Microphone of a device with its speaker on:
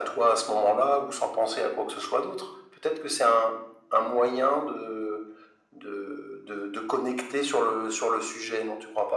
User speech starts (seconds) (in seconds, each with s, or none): none